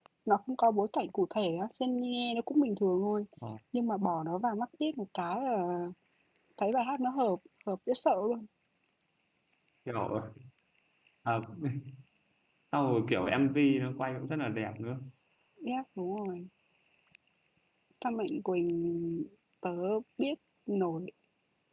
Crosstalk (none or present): none